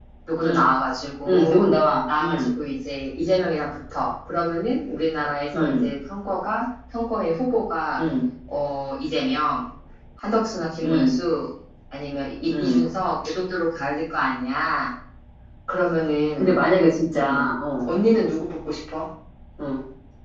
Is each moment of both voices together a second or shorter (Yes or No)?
Yes